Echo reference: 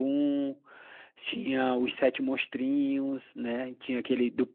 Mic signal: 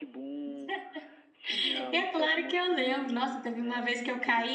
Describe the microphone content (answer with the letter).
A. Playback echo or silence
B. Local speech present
B